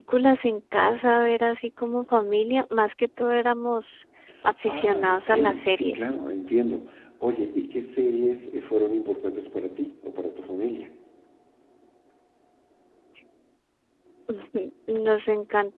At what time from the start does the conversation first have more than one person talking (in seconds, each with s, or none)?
4.7 s